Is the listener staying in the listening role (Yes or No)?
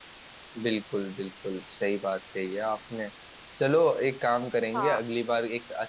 Yes